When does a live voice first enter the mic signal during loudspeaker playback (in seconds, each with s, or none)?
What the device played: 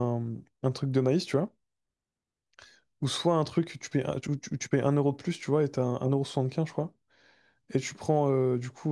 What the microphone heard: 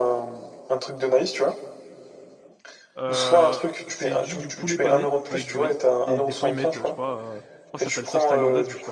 3.0 s